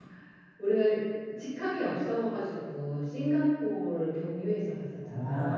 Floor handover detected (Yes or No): Yes